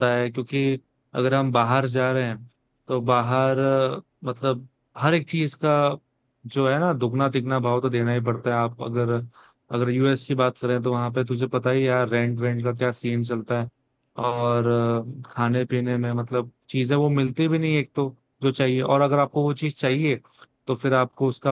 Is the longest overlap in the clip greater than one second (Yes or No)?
No